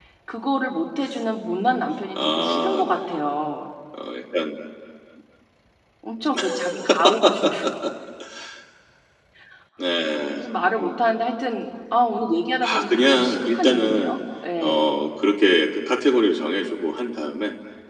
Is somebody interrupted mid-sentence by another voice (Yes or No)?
Yes